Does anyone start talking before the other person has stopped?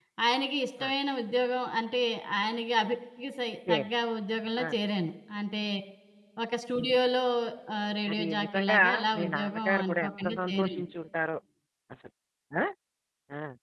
Yes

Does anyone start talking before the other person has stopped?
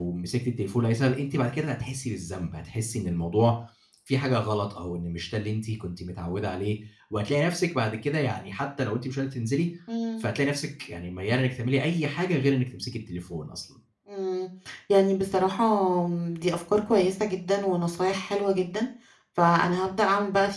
No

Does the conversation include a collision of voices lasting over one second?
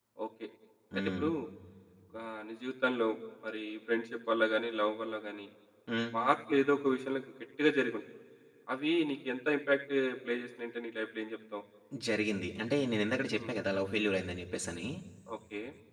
No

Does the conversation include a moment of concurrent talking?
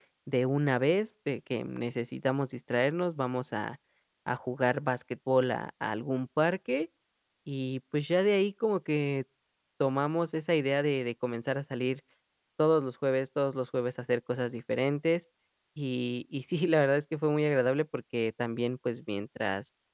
No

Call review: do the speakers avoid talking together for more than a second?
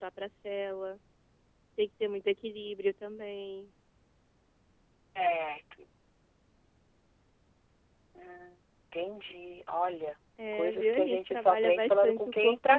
No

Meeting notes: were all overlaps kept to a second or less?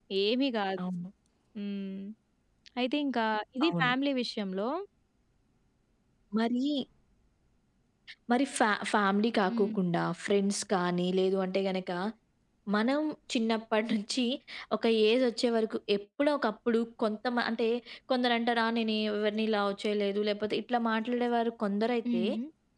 Yes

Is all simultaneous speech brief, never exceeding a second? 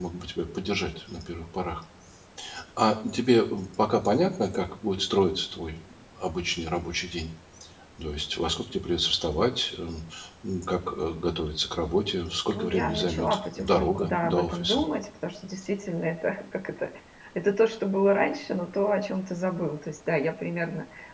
No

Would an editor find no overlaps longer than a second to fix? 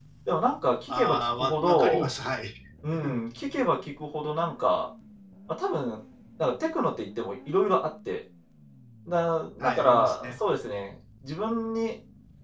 No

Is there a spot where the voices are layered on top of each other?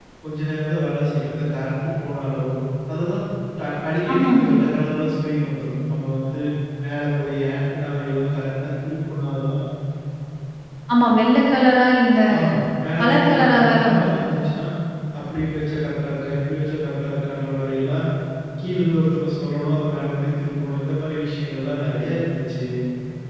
Yes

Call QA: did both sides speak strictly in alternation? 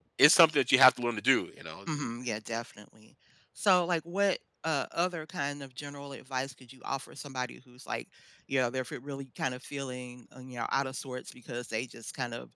Yes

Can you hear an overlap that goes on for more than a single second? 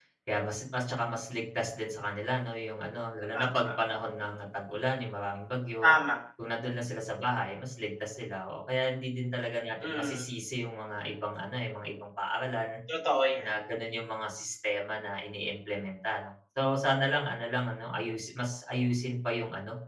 No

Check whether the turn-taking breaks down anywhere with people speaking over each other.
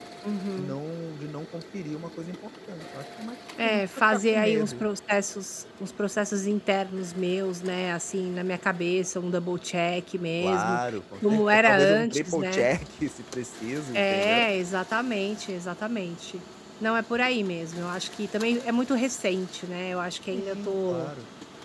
Yes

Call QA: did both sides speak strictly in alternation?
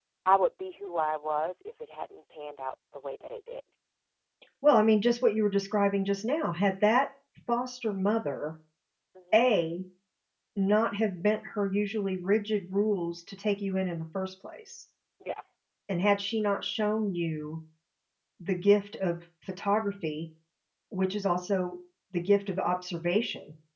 Yes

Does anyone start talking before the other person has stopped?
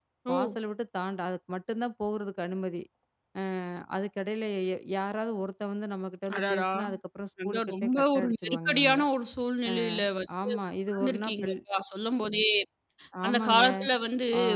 Yes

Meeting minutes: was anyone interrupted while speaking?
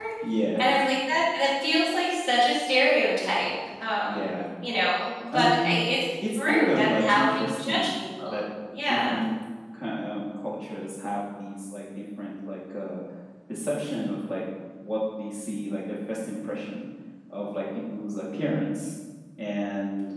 Yes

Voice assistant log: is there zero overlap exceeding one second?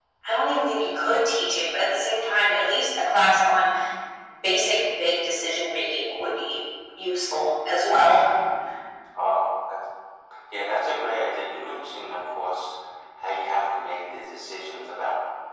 Yes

